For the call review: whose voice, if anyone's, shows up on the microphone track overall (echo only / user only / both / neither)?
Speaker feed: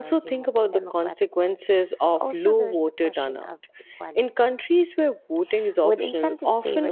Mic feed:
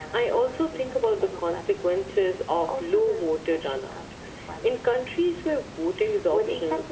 echo only